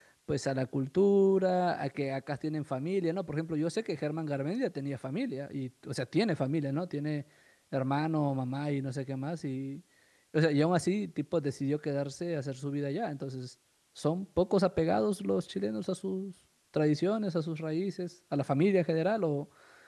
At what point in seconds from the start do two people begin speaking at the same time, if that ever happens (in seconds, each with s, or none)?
none